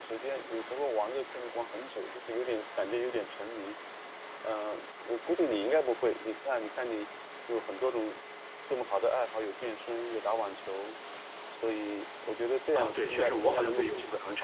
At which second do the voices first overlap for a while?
12.8 s

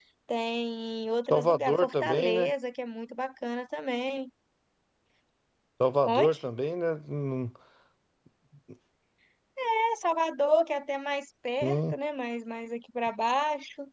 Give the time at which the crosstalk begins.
1.3 s

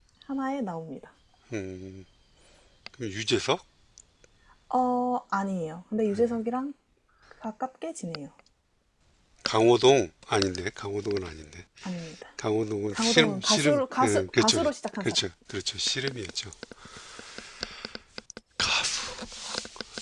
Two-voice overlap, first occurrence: 12.9 s

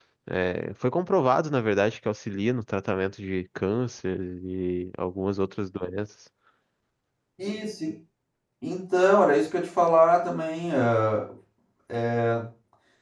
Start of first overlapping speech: none

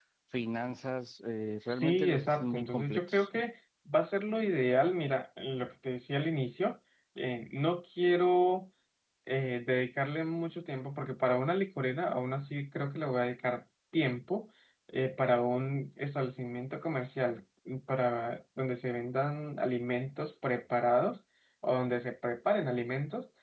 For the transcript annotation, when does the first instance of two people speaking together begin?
1.7 s

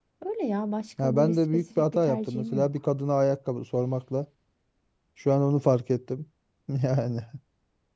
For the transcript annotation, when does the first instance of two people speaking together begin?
1.0 s

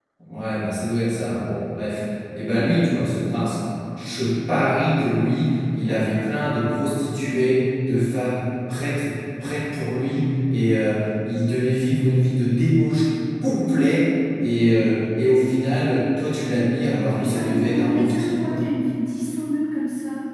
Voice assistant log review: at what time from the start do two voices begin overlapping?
17.1 s

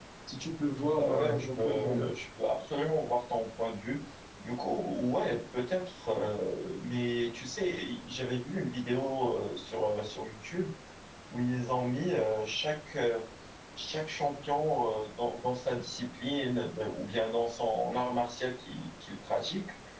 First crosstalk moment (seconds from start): 0.9 s

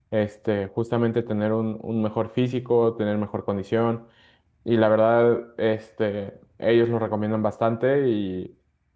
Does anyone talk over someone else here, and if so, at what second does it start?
none

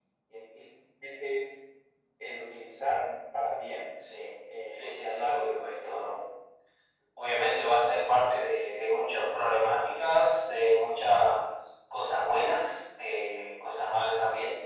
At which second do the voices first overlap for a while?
4.7 s

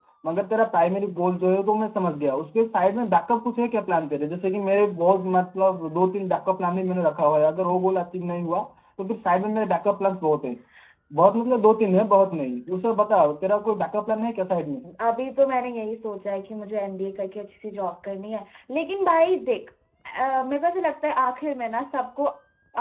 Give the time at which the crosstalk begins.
none

